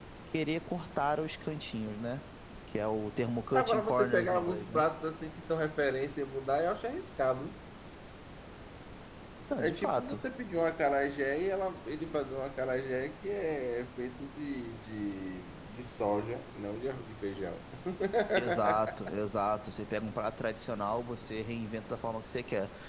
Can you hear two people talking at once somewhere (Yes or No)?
Yes